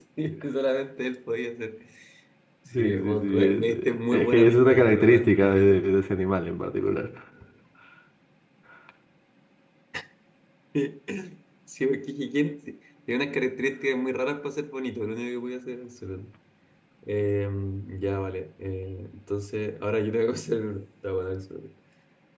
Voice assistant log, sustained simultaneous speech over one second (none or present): present